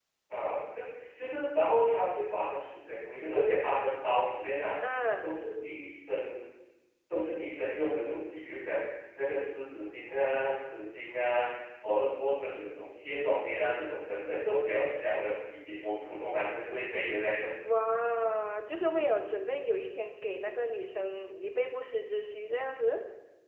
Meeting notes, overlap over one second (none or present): none